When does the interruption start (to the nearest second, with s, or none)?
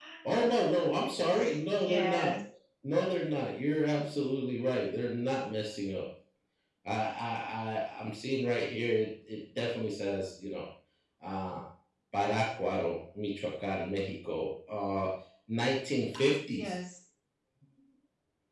1 s